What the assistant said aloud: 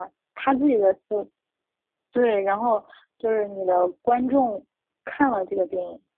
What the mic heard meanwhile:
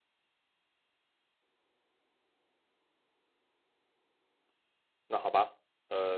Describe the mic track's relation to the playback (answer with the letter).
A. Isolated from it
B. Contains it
A